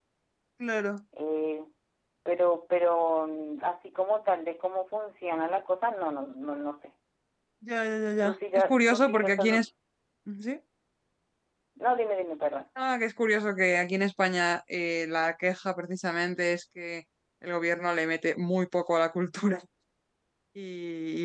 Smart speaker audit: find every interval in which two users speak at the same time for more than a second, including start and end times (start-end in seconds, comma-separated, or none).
8.2-9.5